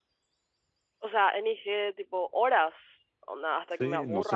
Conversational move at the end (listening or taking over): taking over